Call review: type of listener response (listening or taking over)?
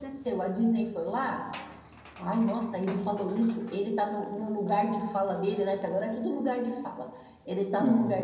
listening